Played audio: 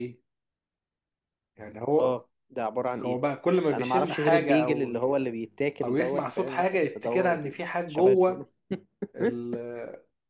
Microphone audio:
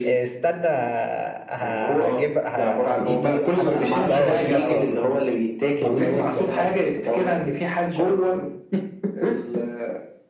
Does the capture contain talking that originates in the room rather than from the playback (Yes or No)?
Yes